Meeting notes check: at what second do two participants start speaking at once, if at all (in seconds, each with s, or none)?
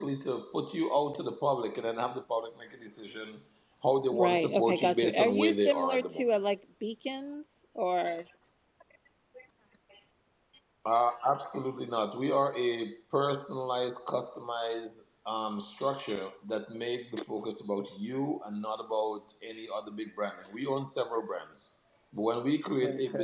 4.1 s